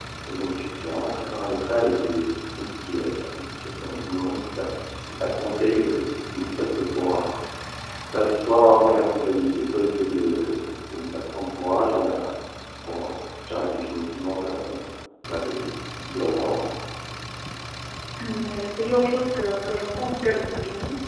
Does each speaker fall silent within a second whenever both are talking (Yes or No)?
Yes